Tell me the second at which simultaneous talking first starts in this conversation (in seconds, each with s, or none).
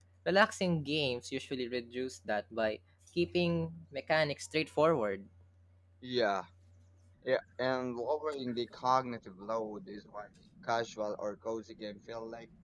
none